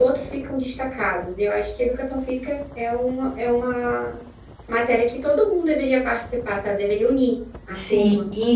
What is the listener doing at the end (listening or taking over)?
taking over